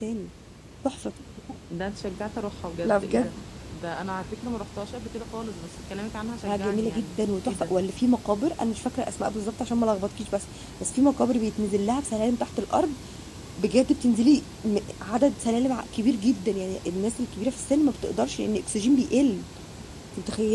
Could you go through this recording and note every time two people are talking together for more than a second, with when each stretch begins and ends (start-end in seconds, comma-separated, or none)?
6.5-7.7